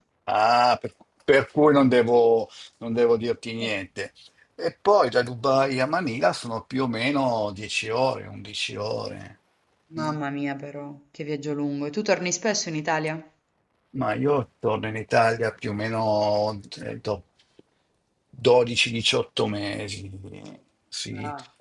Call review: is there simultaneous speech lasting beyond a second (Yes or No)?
No